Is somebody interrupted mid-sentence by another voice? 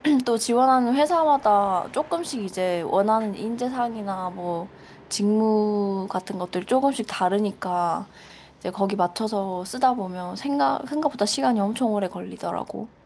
No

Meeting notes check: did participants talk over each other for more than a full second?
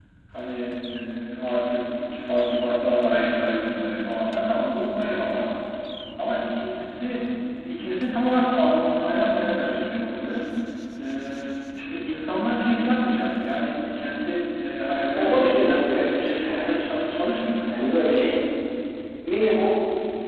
Yes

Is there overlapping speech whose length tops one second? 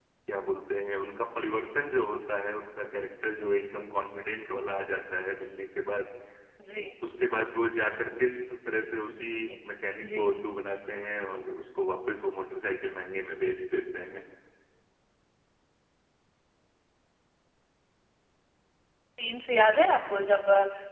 No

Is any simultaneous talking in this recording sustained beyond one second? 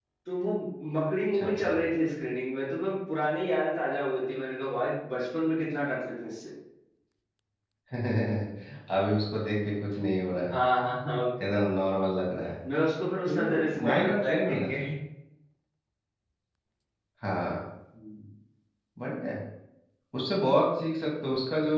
Yes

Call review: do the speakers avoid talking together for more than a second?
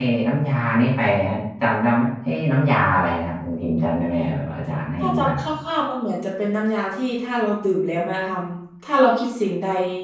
Yes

